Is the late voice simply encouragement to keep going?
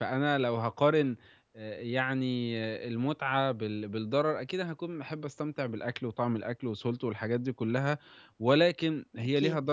Yes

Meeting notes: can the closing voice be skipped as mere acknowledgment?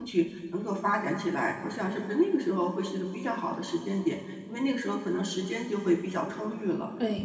No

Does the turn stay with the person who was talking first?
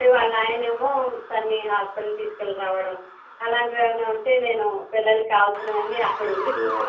Yes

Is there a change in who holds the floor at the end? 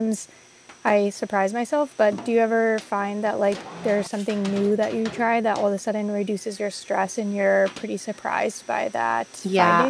Yes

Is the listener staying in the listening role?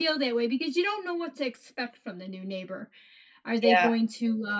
Yes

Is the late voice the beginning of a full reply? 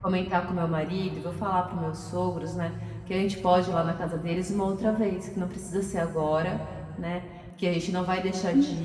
No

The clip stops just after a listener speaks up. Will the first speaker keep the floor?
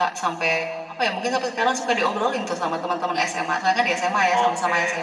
No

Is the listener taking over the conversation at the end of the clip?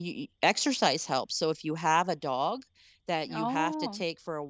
No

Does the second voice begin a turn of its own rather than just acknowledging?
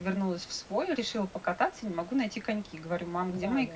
No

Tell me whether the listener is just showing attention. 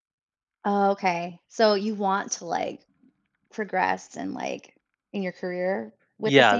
No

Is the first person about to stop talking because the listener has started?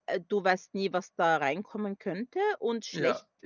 No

